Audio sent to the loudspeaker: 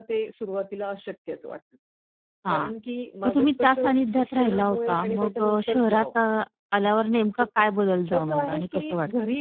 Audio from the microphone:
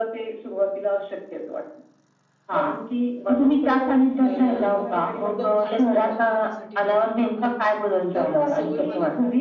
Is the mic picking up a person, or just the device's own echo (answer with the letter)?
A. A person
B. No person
A